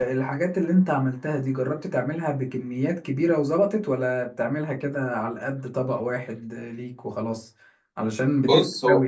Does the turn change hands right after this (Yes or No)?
No